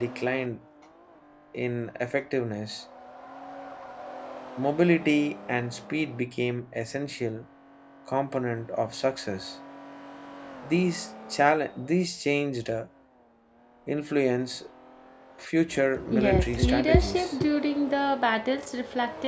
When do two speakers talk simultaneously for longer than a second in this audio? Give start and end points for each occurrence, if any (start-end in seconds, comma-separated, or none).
16.1-17.4